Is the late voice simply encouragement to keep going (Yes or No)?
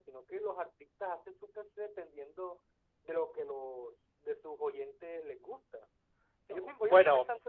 No